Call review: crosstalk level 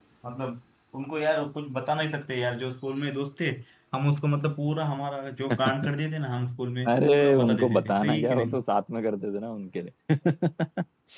present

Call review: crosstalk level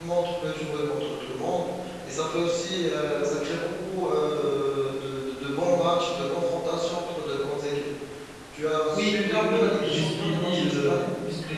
present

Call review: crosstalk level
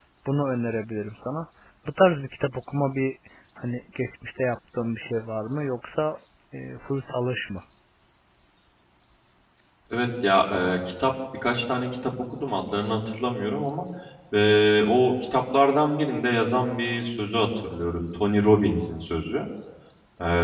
none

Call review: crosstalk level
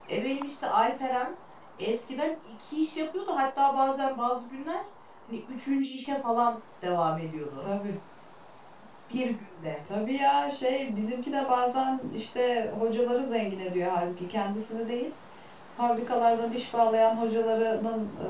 none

